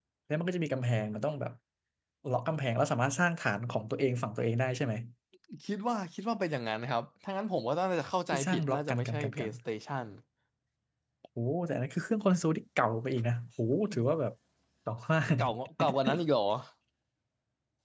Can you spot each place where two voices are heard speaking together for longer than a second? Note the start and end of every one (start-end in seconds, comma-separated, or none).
8.3-9.5